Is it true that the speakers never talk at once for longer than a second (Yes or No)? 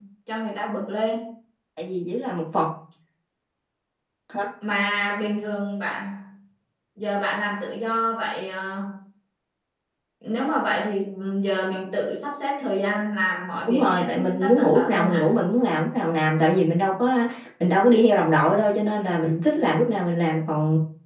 No